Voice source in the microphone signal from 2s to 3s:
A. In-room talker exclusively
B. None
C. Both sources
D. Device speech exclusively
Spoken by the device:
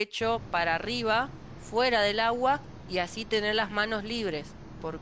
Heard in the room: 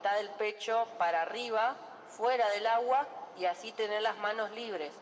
D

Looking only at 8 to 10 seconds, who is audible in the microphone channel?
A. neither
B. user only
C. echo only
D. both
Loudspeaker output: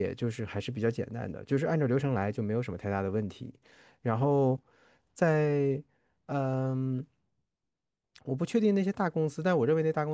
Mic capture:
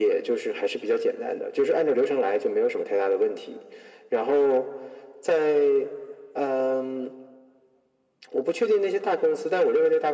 C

